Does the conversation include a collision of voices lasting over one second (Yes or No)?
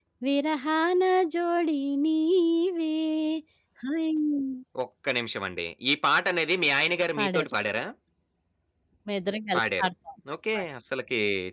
No